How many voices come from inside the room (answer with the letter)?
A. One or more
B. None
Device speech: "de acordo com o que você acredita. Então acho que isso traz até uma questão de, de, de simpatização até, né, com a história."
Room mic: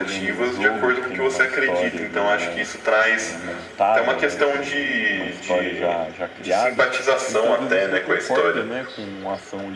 A